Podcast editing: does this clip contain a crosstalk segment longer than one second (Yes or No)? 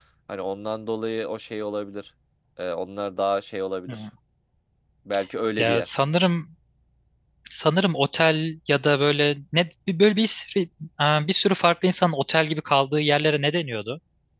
No